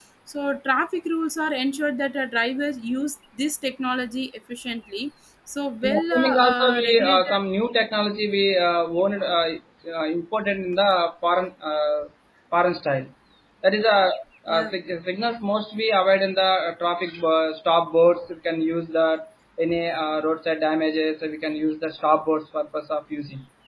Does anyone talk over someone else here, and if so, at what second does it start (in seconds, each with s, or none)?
5.8 s